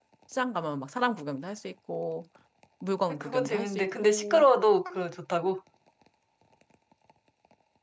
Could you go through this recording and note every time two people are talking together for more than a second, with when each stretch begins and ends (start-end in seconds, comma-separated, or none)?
3.2-4.4